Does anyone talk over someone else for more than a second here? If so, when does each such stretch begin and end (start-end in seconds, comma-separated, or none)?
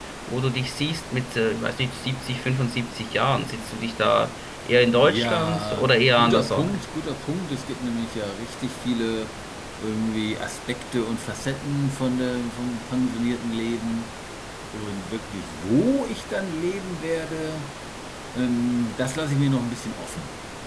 5.0-6.8